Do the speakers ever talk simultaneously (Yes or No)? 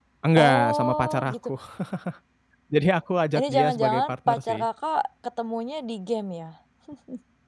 Yes